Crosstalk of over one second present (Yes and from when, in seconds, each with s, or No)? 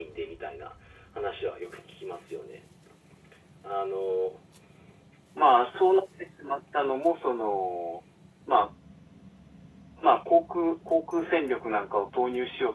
No